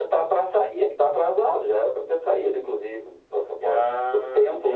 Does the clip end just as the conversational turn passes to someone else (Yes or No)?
Yes